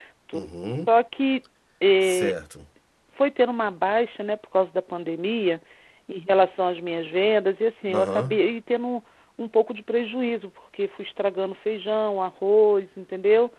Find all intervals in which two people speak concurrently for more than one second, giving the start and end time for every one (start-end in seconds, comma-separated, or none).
none